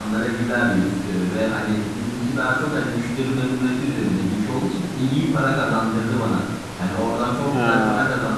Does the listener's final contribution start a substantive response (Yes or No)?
No